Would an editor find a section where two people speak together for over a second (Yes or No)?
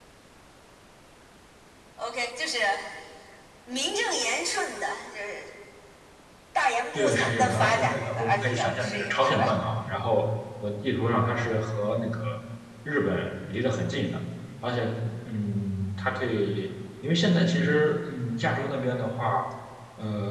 Yes